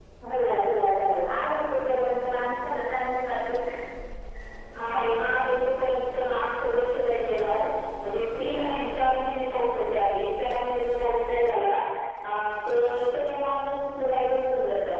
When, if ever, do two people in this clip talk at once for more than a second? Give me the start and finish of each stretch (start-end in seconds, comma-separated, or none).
none